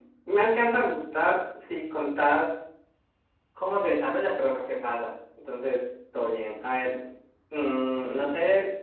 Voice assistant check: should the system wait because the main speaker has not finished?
Yes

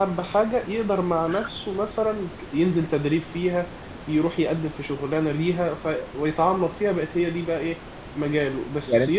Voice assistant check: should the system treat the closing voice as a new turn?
No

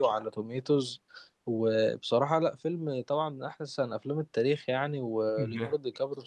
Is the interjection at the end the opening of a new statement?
No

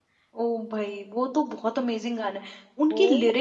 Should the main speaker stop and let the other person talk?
Yes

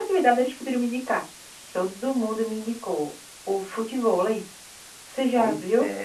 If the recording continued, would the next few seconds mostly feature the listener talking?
Yes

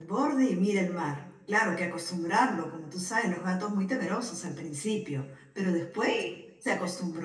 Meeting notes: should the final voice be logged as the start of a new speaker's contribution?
No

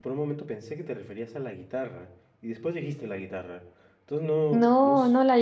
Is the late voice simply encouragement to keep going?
No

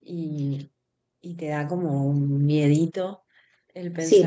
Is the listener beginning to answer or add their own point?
Yes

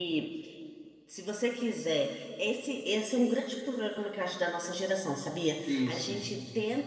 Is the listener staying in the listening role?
Yes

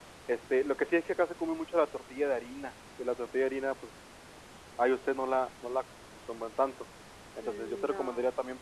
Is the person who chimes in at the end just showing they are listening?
Yes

